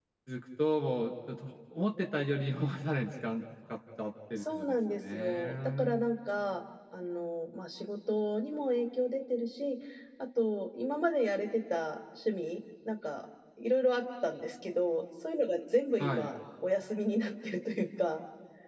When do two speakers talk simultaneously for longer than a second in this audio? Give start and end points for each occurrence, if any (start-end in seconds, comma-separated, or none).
4.4-6.0